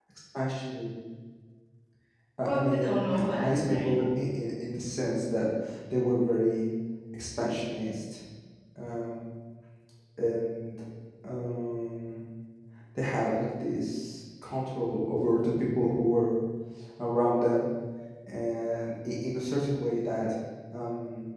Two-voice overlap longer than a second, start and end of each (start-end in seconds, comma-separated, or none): 2.4-3.9